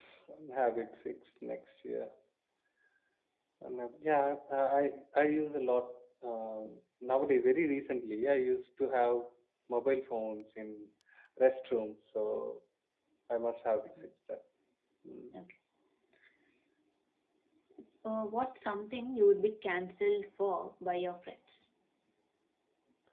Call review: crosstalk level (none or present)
none